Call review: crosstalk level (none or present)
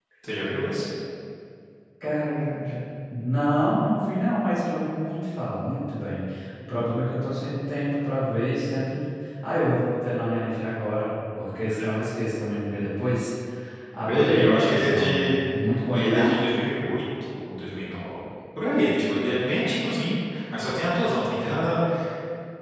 present